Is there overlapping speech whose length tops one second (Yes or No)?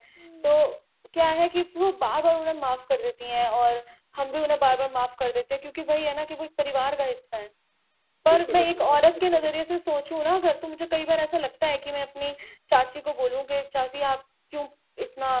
Yes